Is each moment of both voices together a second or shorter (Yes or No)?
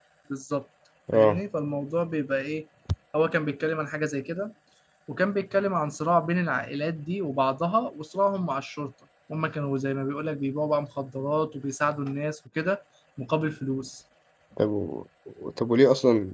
Yes